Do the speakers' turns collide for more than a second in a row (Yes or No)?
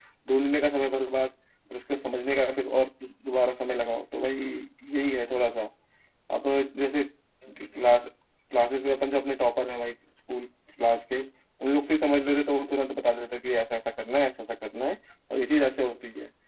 No